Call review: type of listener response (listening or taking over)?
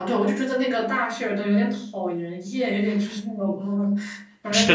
taking over